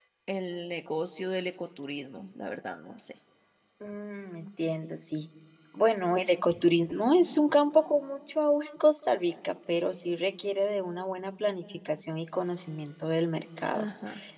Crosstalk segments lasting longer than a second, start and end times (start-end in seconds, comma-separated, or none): none